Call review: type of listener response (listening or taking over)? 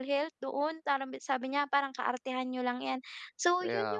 listening